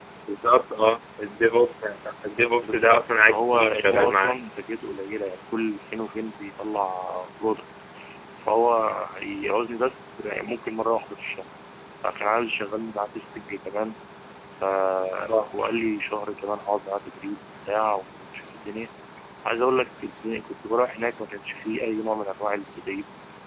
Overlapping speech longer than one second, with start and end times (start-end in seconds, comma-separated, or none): 2.6-4.4